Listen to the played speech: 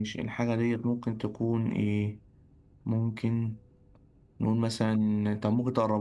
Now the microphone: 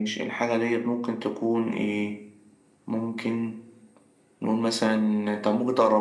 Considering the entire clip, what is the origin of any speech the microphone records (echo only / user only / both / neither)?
echo only